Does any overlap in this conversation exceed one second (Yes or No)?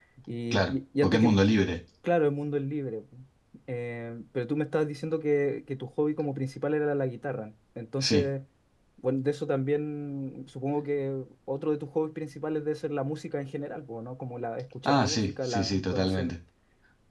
Yes